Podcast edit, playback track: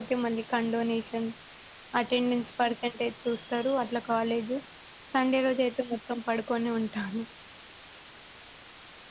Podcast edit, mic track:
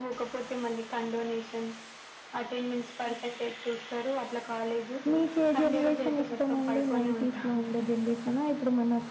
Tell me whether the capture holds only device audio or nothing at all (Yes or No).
No